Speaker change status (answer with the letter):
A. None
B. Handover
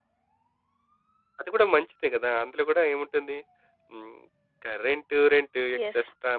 A